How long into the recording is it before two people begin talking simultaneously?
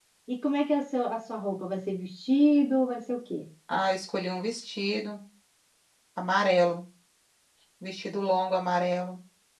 none

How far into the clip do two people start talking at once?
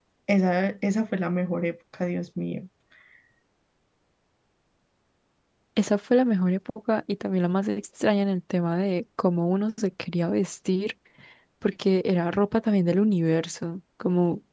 none

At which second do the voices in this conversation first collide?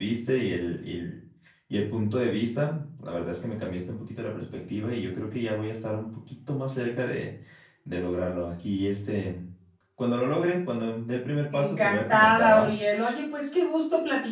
11.5 s

